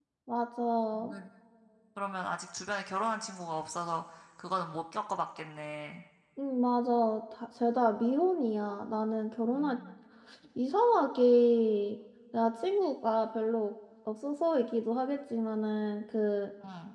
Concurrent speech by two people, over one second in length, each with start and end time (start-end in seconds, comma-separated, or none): none